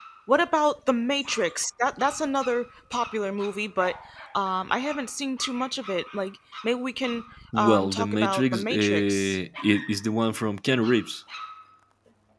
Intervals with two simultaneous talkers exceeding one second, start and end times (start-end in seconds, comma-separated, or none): 7.6-9.4